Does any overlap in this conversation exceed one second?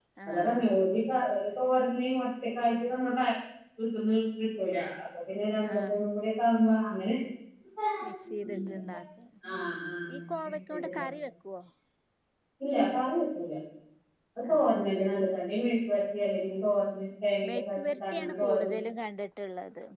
Yes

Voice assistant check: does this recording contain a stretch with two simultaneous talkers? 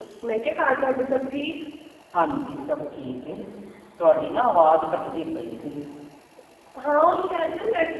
No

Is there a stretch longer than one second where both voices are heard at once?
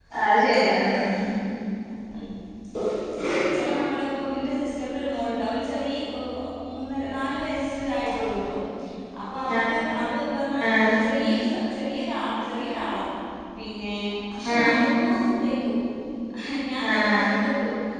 No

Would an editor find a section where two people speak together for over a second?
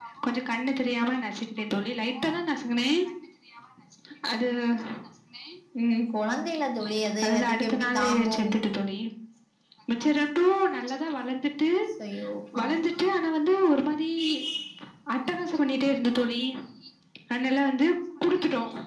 Yes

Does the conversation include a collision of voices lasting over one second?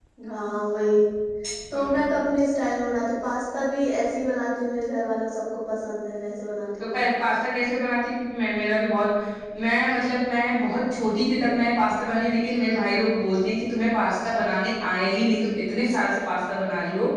No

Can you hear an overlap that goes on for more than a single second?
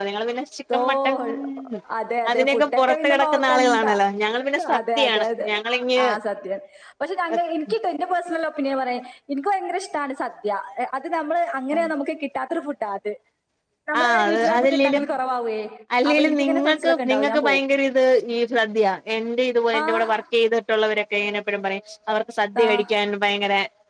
Yes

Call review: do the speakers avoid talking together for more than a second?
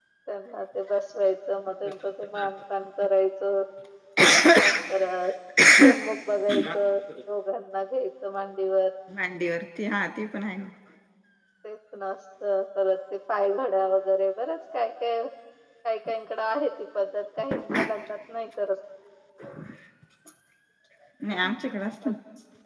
Yes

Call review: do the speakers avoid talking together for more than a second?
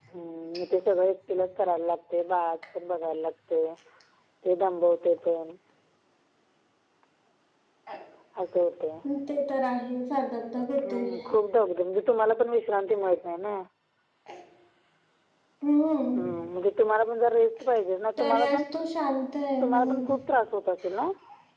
Yes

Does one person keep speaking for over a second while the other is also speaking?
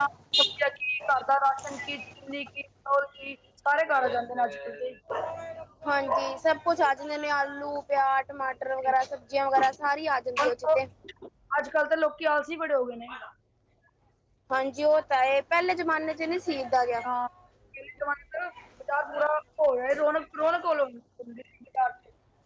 No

